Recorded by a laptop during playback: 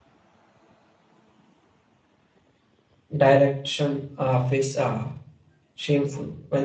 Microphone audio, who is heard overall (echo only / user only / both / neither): user only